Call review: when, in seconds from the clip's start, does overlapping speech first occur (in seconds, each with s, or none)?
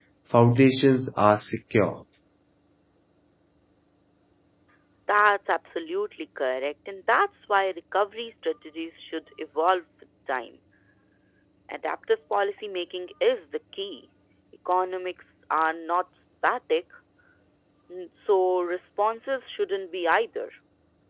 none